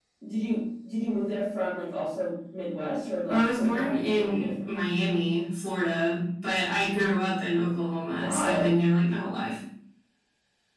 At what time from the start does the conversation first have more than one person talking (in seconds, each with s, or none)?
3.3 s